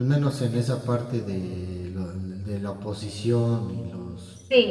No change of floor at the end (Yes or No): No